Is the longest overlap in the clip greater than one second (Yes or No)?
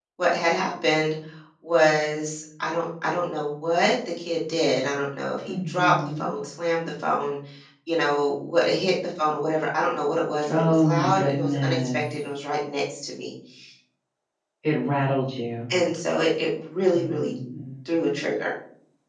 Yes